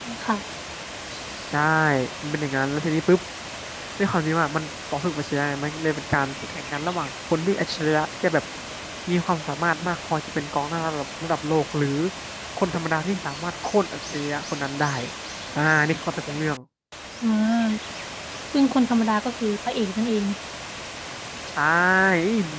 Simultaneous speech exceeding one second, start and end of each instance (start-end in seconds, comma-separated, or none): none